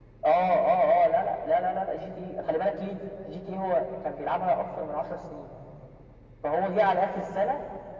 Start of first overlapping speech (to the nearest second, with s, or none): none